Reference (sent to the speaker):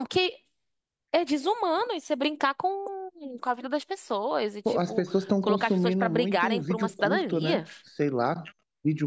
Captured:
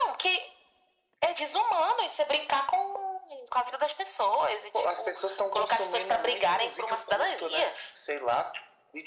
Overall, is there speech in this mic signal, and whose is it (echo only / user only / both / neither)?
echo only